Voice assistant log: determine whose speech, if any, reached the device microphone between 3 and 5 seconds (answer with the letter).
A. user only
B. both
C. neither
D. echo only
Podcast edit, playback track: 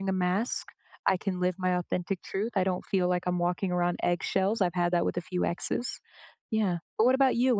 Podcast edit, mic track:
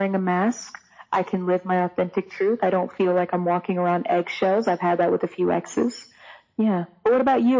D